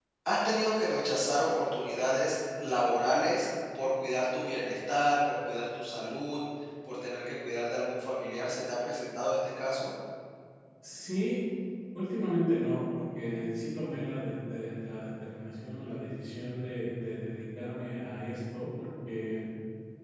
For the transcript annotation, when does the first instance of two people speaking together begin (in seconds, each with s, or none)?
none